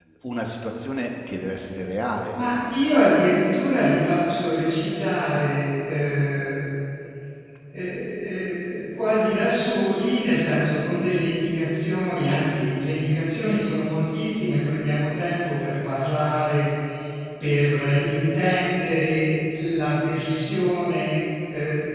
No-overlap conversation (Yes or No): Yes